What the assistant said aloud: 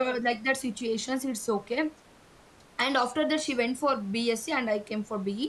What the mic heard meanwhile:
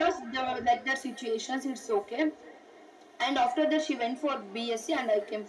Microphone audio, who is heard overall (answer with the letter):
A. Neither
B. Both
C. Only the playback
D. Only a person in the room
C